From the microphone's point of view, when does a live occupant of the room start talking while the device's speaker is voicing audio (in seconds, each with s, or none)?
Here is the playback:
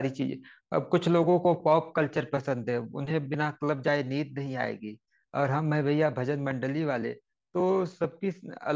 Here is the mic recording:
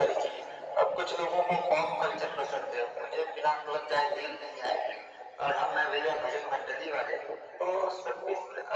none